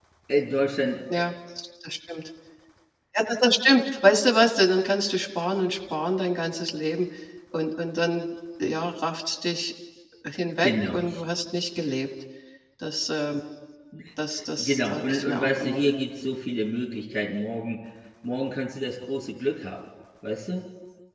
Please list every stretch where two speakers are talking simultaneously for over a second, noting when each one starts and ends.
14.3-15.8

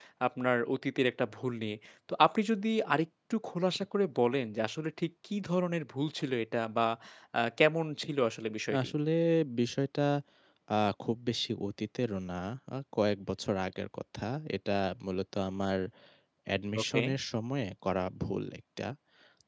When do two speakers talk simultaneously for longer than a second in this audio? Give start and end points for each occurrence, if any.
none

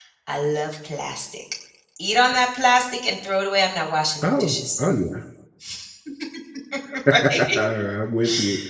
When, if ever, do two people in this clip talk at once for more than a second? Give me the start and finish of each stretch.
none

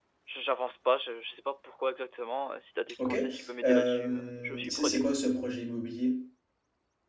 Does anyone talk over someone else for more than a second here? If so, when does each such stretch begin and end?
3.6-5.0

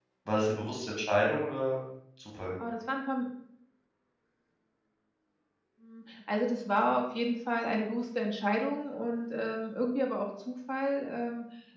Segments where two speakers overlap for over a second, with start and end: none

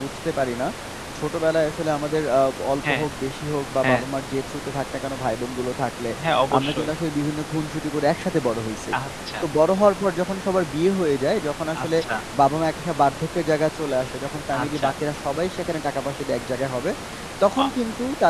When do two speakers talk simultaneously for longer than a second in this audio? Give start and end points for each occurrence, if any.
none

